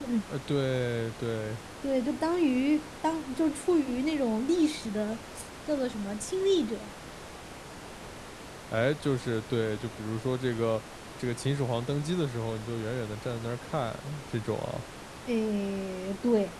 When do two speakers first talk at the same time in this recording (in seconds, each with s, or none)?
none